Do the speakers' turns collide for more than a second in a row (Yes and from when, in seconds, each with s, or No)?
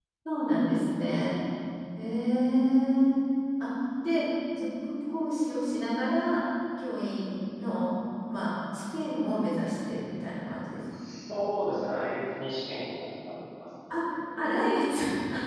No